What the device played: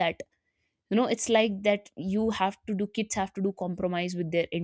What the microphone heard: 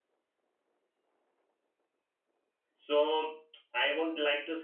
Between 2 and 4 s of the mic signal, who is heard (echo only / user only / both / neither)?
user only